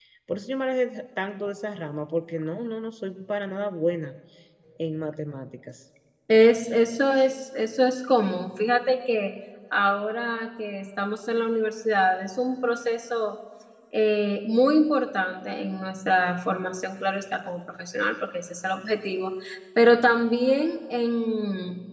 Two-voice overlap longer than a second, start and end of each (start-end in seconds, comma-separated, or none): none